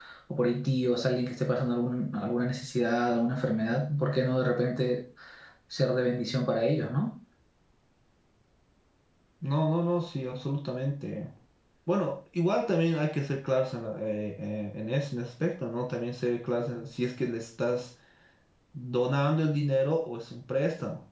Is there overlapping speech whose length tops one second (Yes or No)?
No